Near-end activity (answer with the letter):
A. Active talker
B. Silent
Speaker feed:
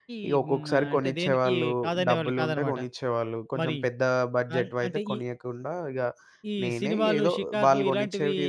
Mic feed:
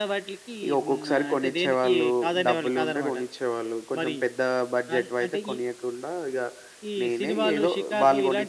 B